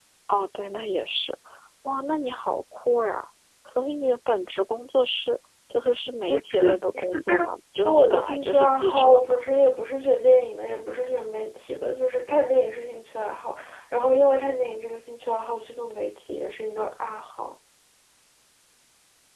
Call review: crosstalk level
present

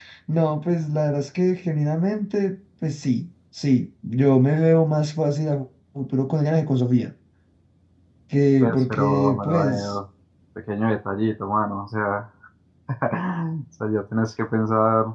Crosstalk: present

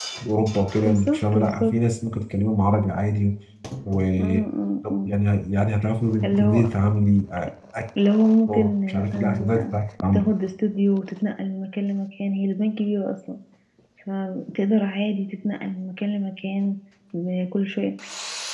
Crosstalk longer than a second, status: present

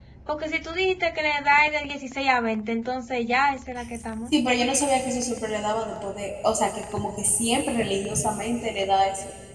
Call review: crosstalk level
none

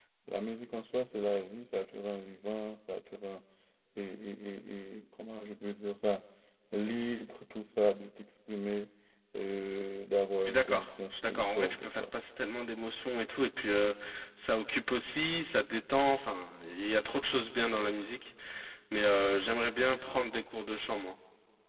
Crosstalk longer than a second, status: present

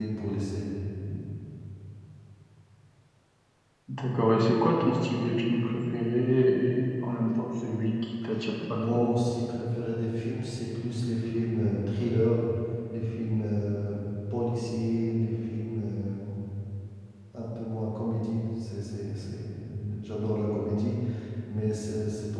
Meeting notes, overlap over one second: none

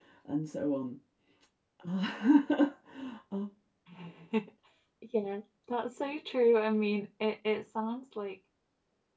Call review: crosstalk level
none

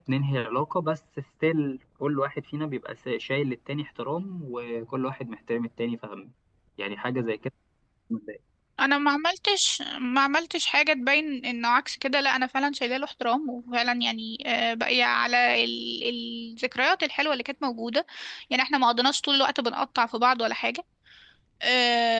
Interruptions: none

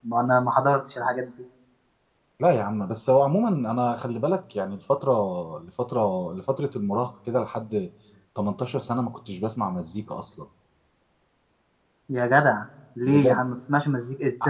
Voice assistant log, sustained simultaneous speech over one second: none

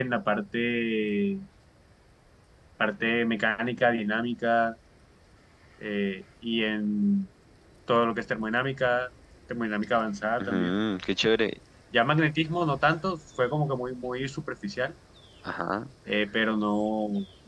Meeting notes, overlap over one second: none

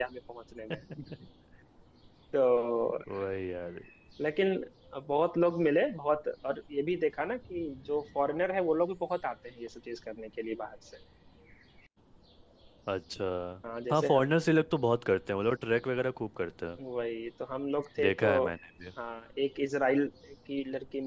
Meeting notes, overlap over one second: none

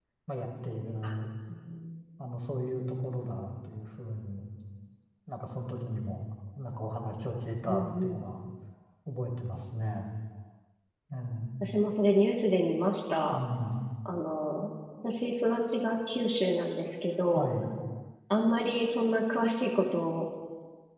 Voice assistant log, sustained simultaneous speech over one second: none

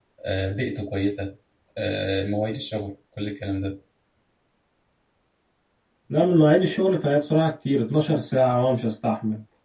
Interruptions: none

